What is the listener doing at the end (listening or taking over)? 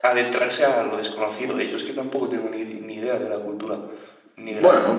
taking over